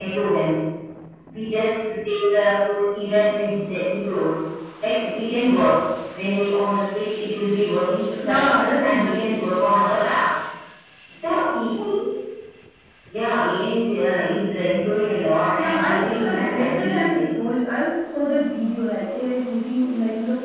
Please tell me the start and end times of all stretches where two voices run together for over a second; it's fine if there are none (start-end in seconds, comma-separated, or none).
8.2-9.5, 15.6-17.2